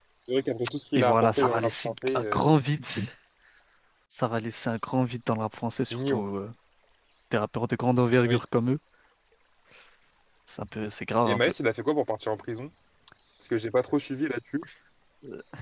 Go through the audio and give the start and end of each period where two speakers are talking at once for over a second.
0.9-2.4

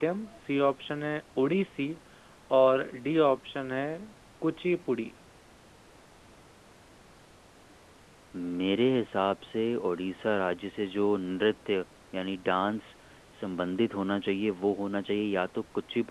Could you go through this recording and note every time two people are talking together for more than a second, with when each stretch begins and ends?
none

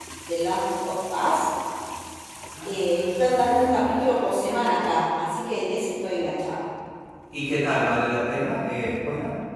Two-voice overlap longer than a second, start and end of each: 2.6-3.9

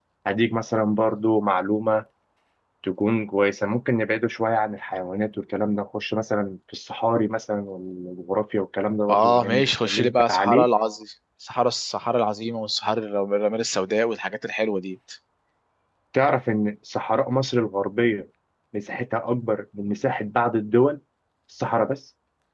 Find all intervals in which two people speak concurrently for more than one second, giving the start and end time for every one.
9.1-10.7

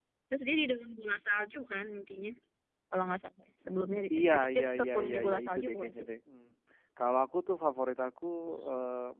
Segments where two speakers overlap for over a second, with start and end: 4.1-5.9

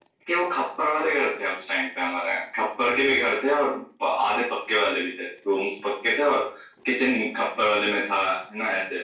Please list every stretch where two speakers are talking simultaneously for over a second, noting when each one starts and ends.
none

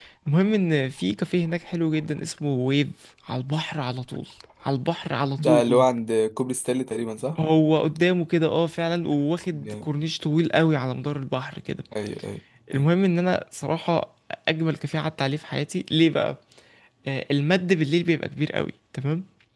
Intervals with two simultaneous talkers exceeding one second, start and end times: none

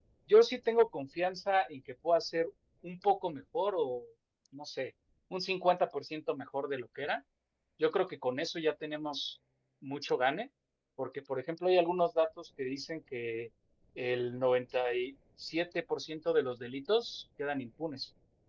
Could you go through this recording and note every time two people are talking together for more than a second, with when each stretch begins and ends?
none

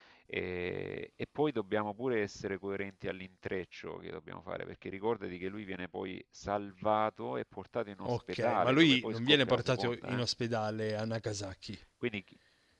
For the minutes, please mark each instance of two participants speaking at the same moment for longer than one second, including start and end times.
8.0-10.2

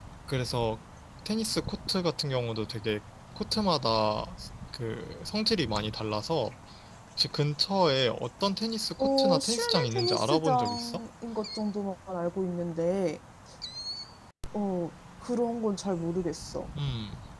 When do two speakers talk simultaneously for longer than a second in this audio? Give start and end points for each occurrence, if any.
9.0-11.0

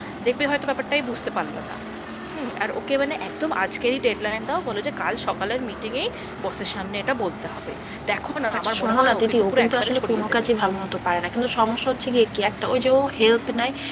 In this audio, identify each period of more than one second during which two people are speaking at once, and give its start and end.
8.6-10.5

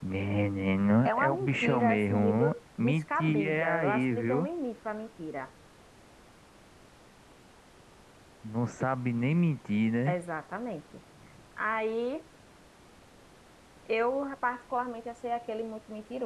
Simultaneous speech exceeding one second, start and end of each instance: 1.1-4.5

